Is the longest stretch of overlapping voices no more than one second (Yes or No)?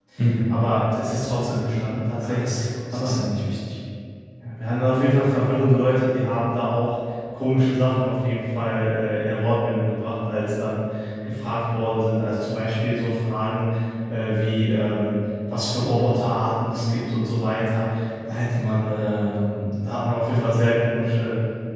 Yes